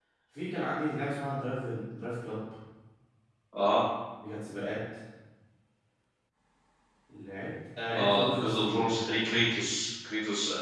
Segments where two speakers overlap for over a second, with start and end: 7.9-9.2

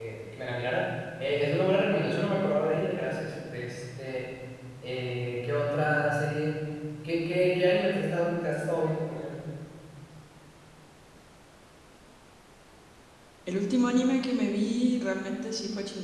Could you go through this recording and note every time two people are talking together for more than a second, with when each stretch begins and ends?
none

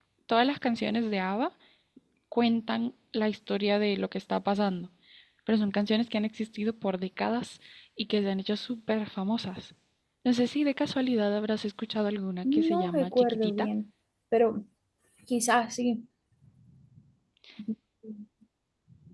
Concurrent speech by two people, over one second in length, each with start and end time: 12.4-13.7

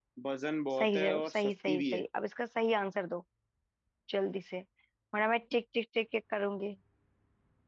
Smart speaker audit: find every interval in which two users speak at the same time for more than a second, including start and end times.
0.8-2.0

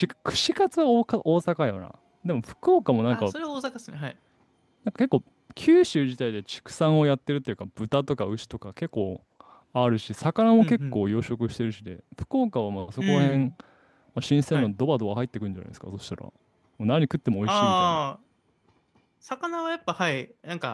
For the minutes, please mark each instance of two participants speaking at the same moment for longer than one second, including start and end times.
none

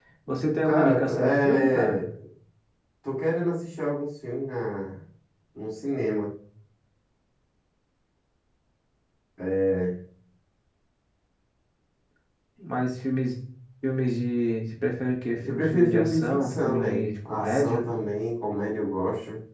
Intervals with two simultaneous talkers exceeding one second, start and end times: 0.6-2.0, 15.5-17.9

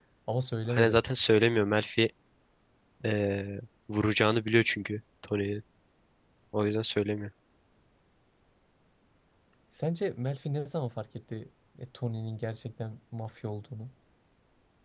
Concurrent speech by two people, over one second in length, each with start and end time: none

